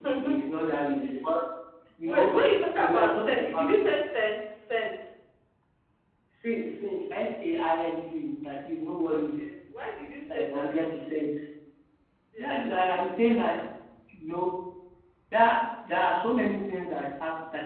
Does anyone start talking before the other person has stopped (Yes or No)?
Yes